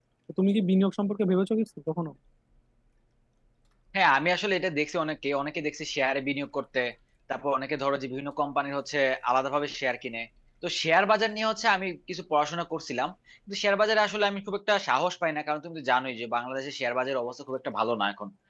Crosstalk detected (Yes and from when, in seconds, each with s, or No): No